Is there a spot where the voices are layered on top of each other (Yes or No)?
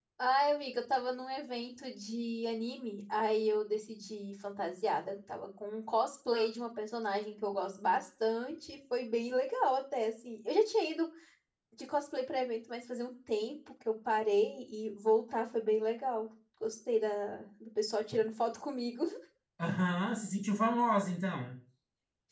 No